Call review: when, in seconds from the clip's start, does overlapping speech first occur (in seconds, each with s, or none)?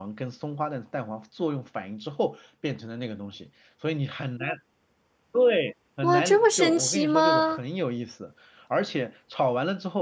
6.0 s